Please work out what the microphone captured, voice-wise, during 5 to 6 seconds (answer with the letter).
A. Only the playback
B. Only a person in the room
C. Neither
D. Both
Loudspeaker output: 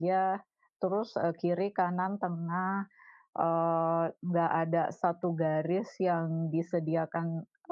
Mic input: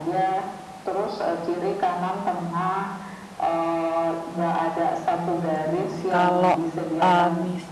D